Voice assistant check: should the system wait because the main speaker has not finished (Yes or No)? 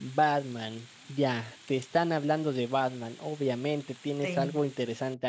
Yes